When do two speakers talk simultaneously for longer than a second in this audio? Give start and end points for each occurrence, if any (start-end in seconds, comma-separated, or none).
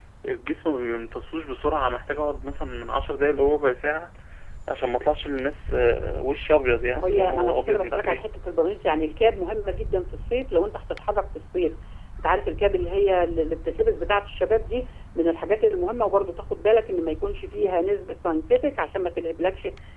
7.0-8.2